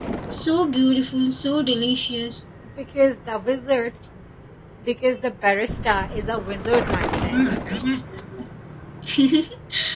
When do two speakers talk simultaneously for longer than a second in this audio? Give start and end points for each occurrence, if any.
none

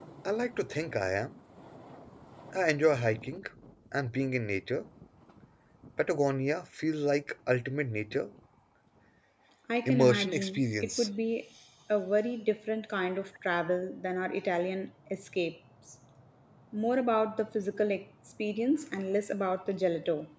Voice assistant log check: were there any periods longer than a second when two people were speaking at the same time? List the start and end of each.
9.9-11.1

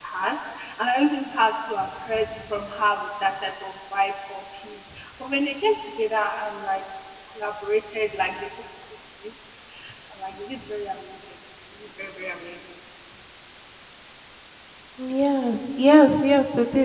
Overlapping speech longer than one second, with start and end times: none

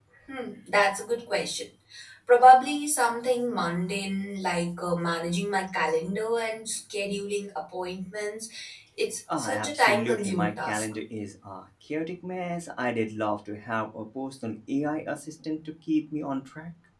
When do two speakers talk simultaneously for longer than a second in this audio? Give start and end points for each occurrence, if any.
9.4-10.9

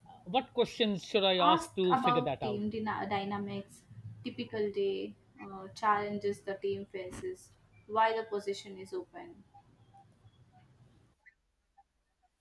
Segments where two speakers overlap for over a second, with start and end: 1.4-2.6

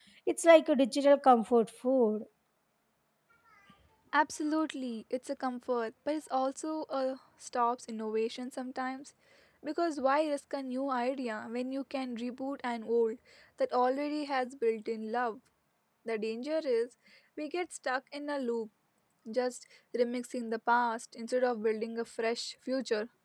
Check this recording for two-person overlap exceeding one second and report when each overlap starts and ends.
none

